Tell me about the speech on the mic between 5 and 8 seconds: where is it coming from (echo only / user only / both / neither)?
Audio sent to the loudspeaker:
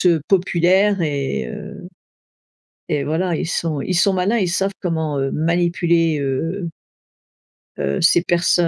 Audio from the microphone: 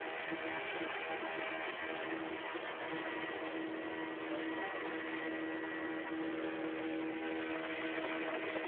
neither